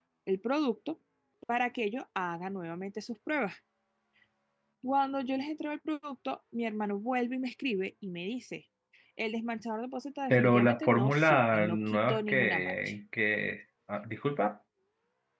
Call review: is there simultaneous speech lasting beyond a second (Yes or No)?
Yes